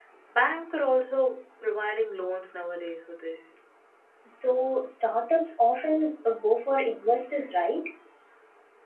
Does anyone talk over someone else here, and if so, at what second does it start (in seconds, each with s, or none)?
none